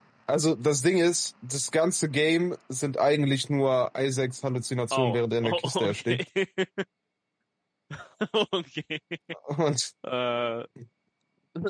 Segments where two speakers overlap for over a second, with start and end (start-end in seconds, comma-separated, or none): 4.9-6.2